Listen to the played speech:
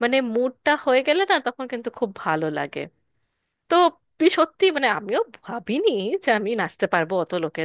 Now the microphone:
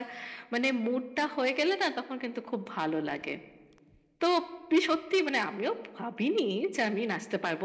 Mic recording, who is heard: echo only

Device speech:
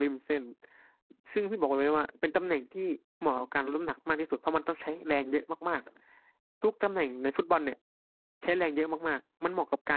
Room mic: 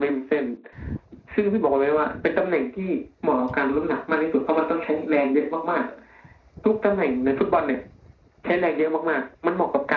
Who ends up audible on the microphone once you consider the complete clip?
echo only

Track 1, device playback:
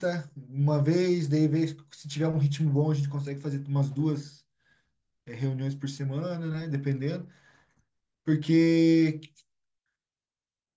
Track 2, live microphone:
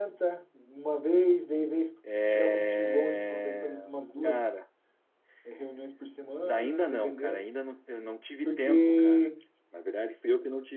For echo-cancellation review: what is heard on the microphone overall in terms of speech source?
both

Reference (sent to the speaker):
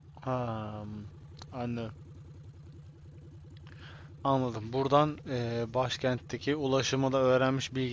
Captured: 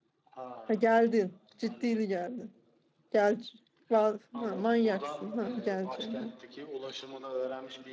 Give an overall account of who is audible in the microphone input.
both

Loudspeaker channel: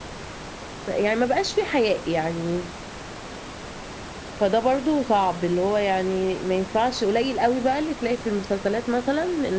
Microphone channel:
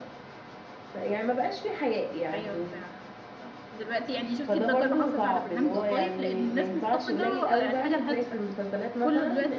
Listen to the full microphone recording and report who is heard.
both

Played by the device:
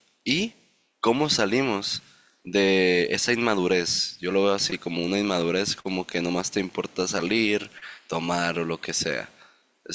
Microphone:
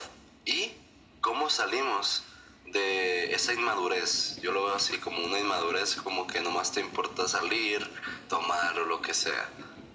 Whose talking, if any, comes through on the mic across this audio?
echo only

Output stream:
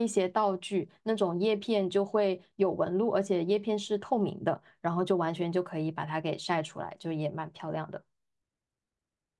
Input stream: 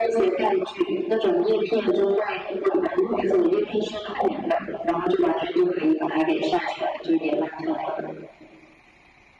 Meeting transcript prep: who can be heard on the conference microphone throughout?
echo only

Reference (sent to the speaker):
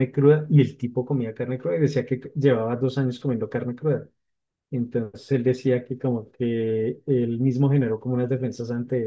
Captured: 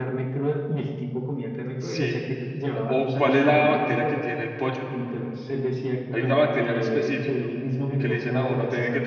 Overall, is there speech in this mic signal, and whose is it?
both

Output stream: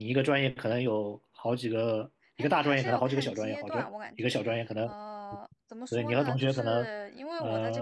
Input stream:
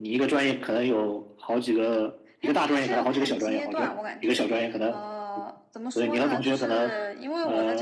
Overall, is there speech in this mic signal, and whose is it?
both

